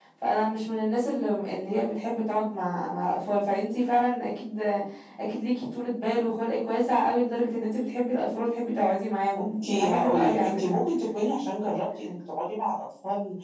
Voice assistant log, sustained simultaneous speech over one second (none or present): present